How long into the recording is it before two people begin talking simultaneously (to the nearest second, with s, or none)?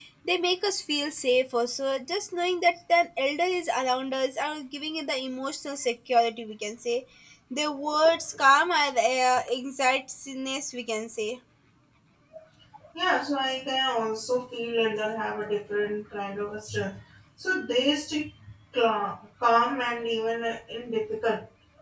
none